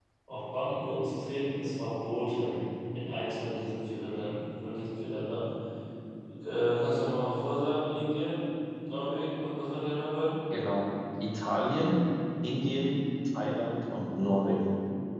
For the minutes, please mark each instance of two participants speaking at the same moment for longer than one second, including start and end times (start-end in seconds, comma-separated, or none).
none